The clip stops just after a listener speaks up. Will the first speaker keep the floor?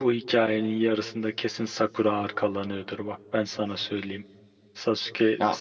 Yes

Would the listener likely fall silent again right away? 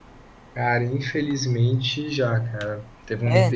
Yes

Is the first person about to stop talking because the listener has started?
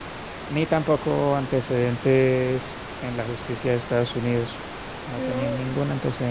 No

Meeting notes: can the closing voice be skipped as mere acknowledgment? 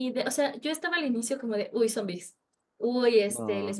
Yes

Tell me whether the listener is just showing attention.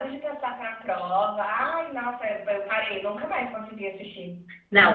No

